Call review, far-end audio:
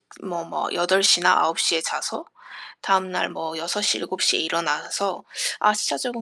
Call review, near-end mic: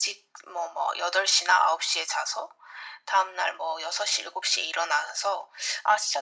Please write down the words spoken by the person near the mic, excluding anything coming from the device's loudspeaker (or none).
none